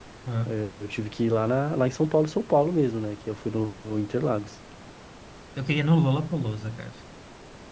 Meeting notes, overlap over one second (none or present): none